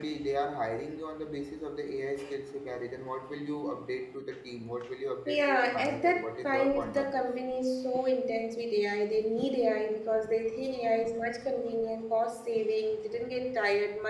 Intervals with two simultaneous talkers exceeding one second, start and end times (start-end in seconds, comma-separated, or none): 5.3-7.2